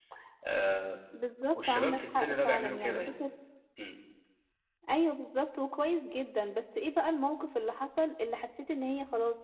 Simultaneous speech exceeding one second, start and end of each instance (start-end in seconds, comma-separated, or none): 1.6-3.0